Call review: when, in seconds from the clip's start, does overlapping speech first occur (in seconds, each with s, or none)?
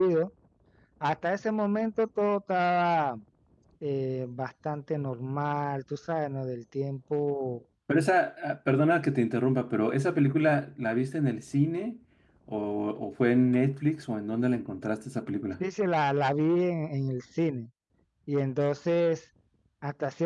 none